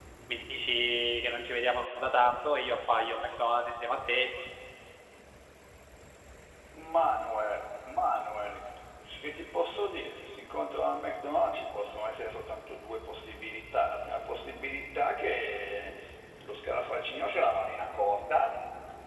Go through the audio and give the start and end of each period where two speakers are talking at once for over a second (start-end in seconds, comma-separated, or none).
none